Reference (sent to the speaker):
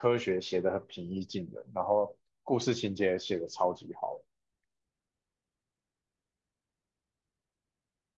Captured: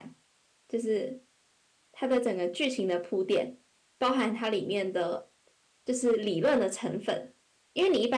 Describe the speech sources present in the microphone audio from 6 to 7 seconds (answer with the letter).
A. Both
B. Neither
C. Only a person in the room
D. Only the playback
C